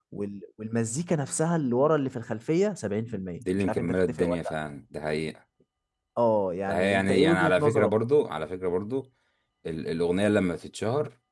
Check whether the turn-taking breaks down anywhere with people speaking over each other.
Yes, from 3.0 s

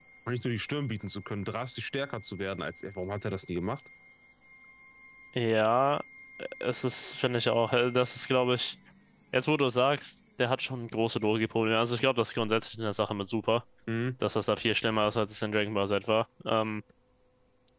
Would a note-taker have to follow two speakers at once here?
No

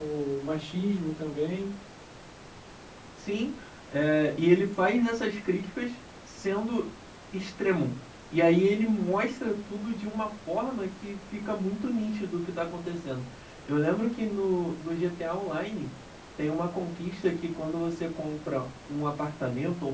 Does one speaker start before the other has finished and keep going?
No

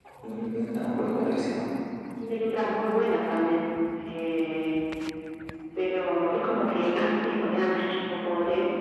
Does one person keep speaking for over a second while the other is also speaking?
No

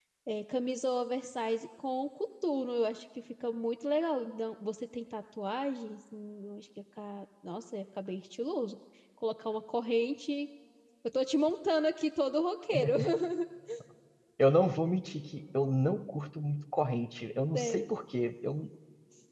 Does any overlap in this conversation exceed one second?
No

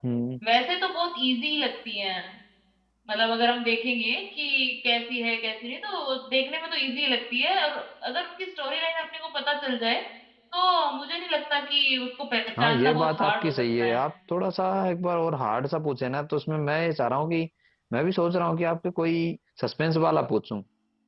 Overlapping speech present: Yes, from 12.6 s

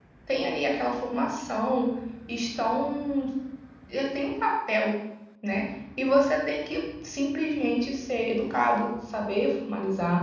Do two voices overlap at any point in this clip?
No

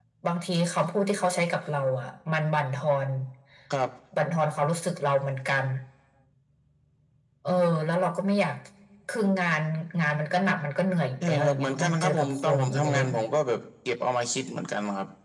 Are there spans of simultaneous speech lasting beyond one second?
Yes, from 11.2 s

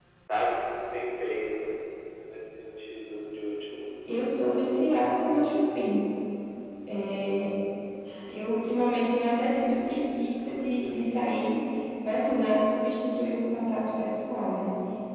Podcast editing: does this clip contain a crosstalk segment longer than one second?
No

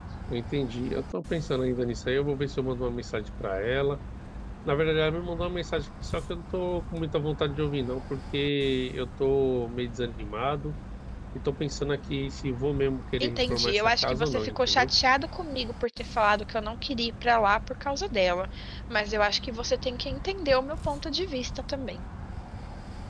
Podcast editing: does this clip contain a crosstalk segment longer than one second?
Yes, from 13.2 s

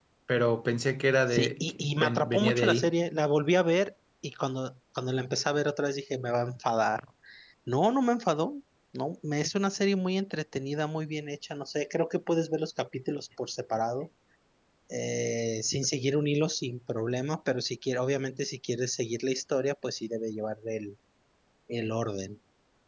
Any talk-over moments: Yes, from 1.3 s

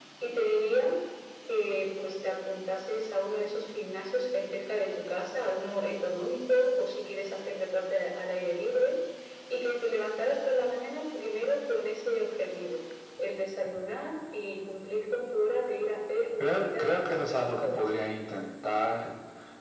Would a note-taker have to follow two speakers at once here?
Yes, from 16.4 s

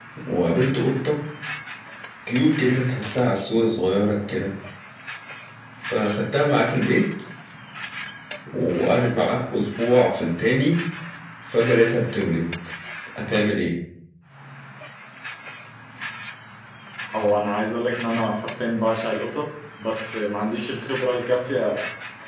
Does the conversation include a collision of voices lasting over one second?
No

